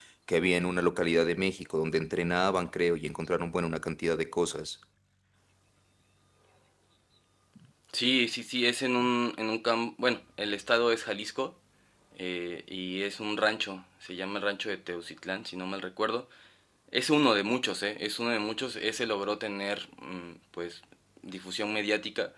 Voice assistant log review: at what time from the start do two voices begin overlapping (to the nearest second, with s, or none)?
none